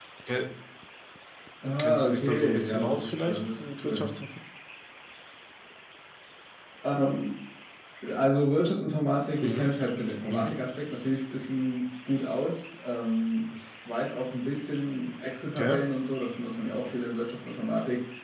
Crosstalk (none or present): present